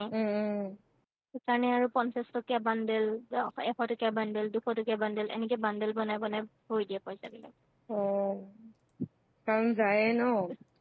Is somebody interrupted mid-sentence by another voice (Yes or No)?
No